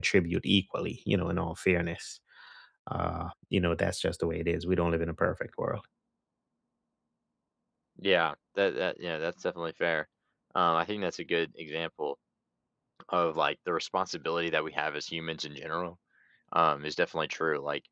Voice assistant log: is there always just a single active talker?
Yes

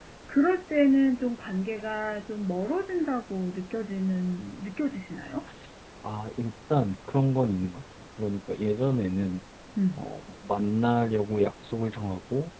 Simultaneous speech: No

